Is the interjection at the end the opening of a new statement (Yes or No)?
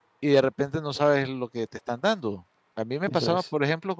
No